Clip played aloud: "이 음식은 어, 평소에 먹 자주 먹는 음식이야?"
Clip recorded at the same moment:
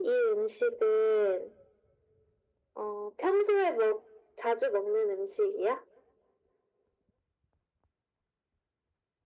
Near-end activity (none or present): none